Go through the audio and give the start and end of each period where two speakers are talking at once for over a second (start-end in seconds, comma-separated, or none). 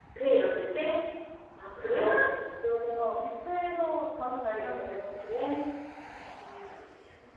none